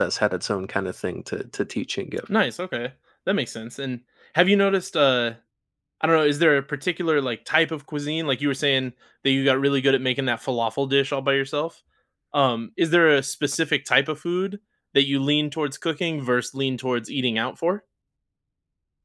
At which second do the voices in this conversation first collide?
none

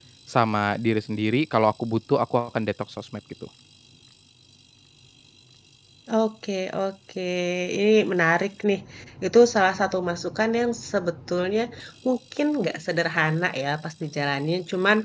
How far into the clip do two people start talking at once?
none

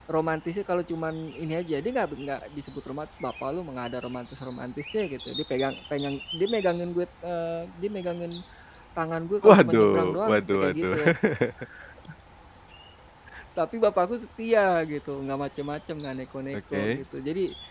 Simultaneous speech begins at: 9 s

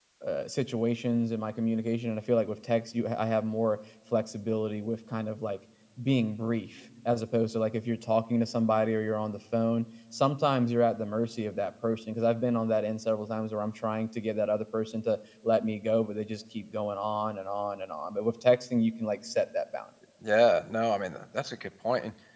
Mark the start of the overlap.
none

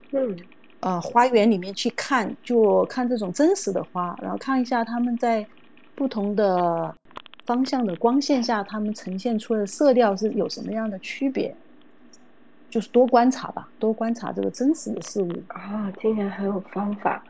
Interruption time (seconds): none

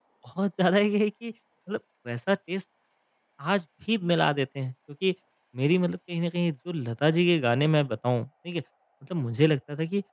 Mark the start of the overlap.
none

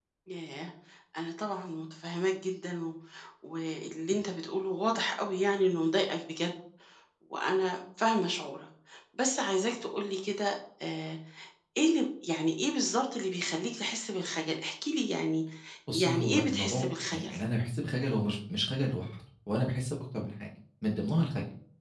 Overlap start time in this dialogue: 16 s

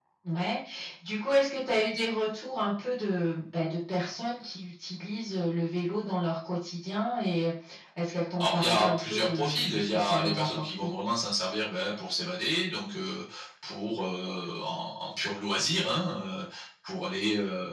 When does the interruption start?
8 s

